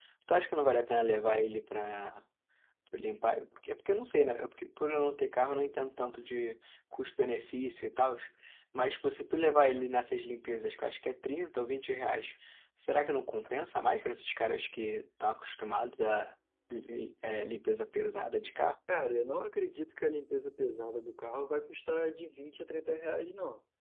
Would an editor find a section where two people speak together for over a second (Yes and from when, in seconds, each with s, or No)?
No